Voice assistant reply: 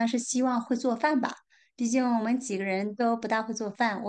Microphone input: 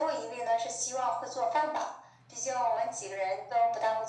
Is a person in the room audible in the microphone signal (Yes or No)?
No